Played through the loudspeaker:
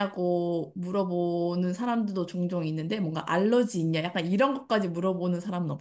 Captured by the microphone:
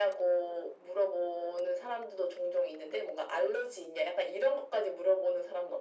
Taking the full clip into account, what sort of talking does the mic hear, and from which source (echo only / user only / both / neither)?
echo only